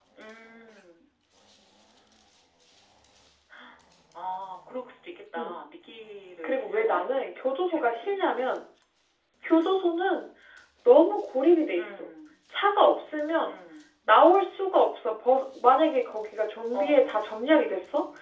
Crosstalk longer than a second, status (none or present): present